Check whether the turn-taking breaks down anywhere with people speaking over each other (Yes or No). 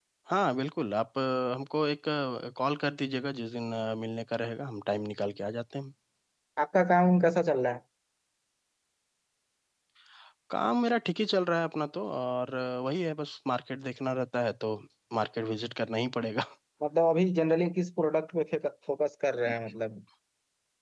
No